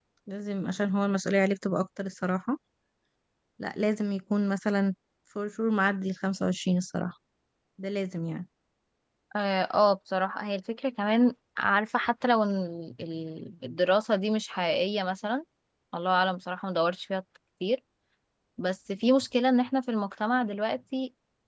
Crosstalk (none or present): none